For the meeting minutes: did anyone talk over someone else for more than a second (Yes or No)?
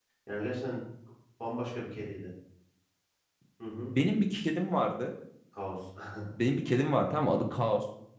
No